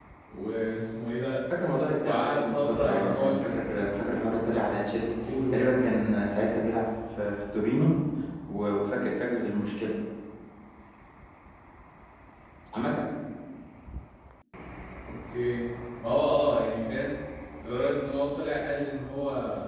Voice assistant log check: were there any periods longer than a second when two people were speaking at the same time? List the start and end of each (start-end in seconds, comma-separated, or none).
1.5-3.8